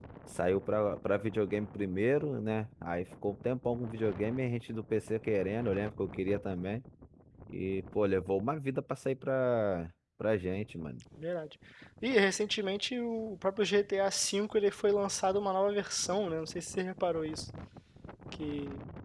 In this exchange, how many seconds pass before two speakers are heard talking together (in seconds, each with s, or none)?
none